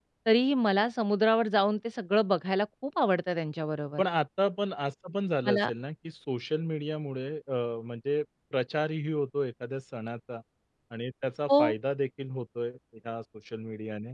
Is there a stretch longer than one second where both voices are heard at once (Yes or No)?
No